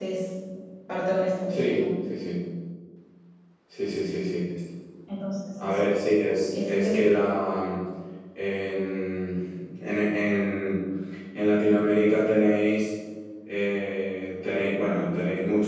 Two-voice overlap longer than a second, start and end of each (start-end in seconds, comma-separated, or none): none